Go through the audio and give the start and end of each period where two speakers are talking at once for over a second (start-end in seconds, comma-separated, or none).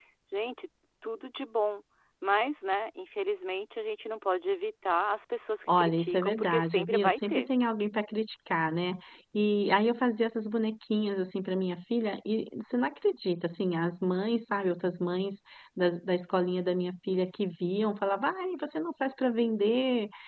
5.8-7.5